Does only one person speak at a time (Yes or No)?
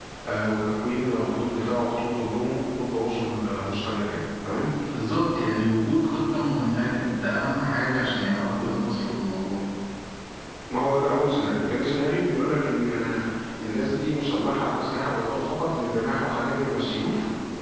Yes